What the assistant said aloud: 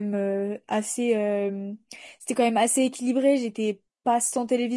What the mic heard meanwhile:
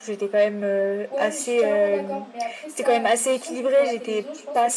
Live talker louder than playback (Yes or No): No